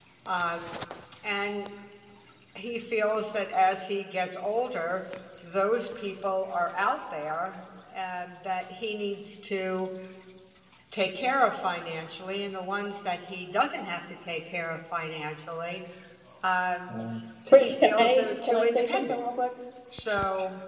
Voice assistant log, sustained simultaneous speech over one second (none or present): present